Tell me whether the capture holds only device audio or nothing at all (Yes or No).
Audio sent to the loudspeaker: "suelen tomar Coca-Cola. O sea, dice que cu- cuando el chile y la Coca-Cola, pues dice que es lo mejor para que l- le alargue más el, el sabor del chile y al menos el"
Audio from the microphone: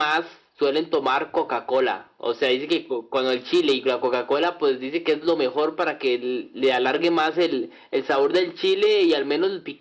Yes